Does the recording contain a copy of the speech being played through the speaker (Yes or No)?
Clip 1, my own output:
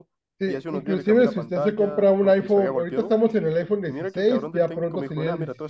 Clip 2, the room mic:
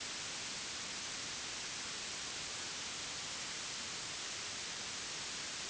No